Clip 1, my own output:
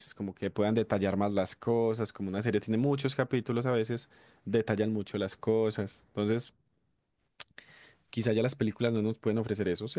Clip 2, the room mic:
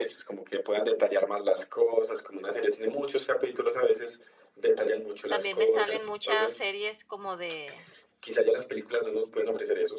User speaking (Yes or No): Yes